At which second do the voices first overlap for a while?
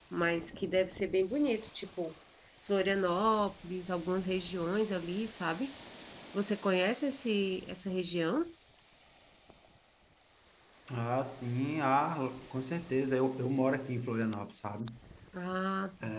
none

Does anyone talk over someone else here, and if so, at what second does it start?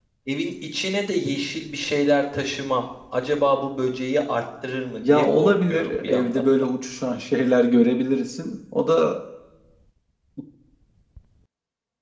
5.0 s

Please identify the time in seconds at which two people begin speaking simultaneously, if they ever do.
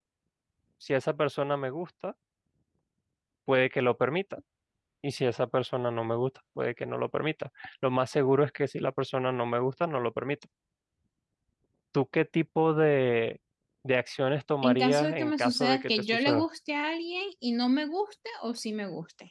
14.6 s

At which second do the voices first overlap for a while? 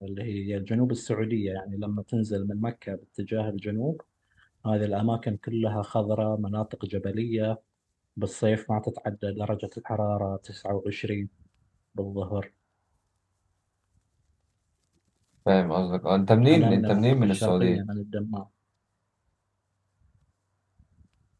16.4 s

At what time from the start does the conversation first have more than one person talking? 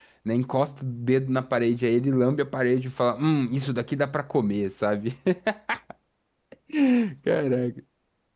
none

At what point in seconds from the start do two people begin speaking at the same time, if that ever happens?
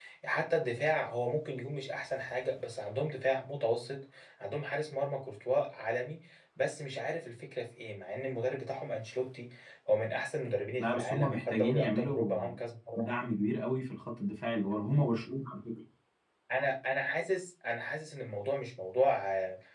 10.8 s

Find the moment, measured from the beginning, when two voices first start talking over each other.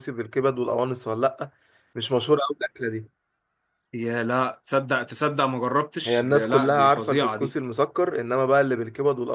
6.0 s

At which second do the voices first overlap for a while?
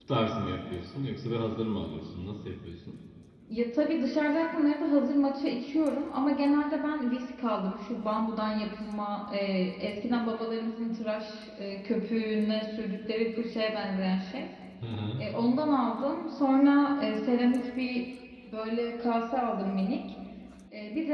none

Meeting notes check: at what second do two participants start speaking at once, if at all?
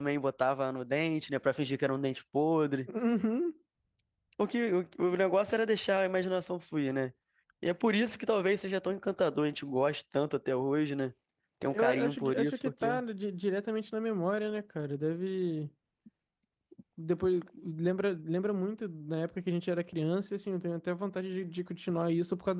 11.7 s

